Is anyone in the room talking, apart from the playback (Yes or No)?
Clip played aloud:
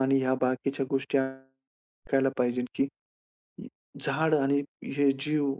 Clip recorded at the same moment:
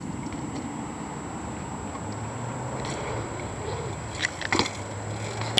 No